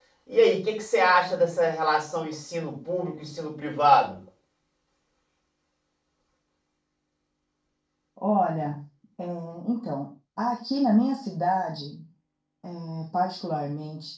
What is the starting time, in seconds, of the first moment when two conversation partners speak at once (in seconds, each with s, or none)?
none